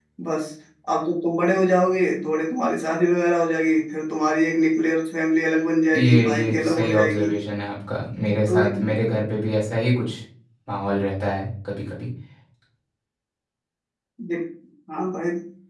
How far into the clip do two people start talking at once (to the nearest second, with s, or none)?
6 s